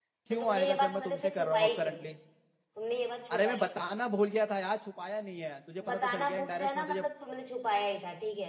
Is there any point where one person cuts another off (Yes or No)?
Yes